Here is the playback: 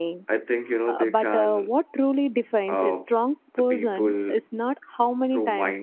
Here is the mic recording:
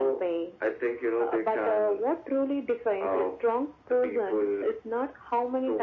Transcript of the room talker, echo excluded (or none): none